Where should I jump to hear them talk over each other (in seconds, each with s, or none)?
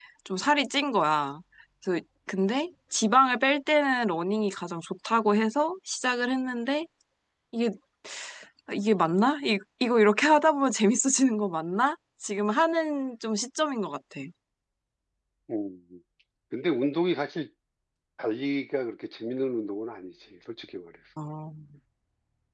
none